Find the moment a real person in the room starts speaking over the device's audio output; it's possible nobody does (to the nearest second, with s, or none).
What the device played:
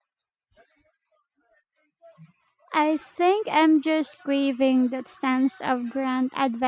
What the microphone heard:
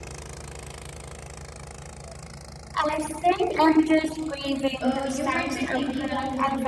5 s